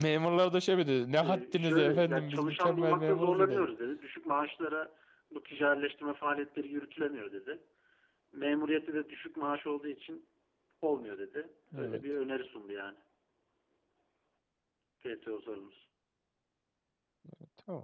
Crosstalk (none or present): present